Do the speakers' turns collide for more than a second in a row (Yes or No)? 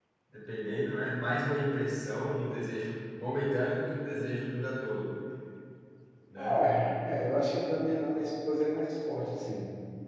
No